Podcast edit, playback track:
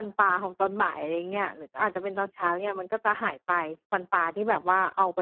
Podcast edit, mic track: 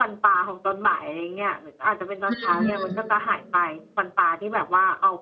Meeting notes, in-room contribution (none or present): present